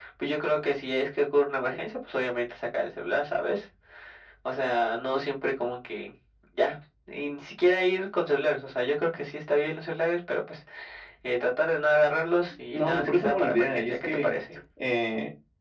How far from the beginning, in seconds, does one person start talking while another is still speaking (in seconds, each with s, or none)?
12.7 s